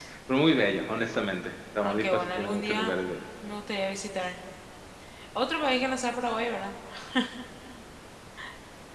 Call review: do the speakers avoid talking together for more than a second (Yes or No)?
No